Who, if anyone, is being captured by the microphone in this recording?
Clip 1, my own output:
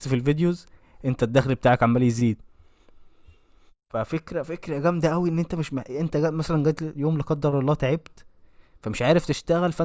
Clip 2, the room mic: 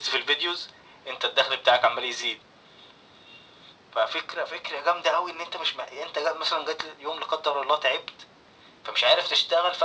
echo only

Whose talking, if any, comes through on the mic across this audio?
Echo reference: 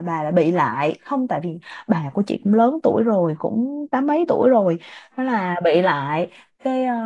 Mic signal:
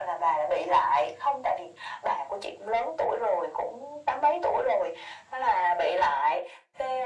echo only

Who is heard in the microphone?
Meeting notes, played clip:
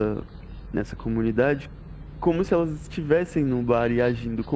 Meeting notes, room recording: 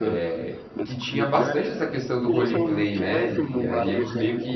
both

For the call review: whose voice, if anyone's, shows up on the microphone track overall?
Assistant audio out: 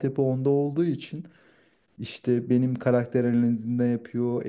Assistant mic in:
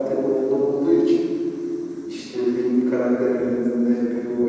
echo only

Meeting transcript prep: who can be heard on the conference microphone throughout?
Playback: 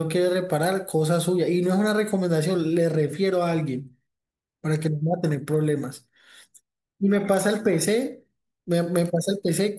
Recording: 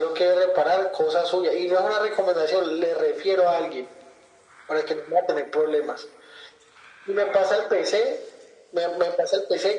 echo only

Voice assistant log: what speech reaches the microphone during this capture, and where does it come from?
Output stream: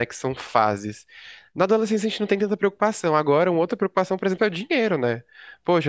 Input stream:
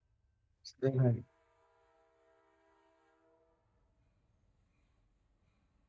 user only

